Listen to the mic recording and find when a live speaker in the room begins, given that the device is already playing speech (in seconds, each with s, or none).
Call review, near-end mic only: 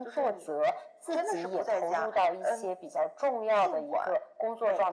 none